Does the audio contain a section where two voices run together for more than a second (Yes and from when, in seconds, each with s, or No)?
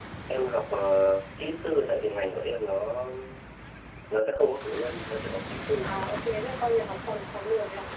No